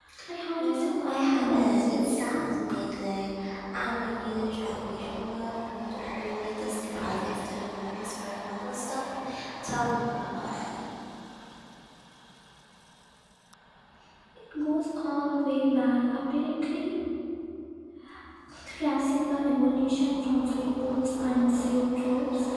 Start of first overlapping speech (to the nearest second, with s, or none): 1 s